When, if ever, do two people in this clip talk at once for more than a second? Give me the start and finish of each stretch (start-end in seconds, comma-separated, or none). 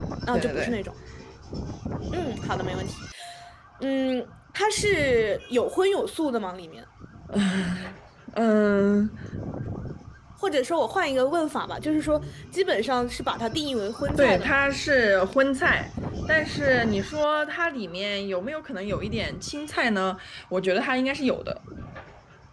none